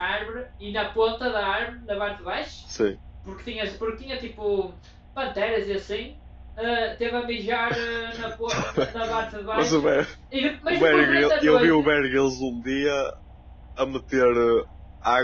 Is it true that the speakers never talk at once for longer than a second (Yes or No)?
No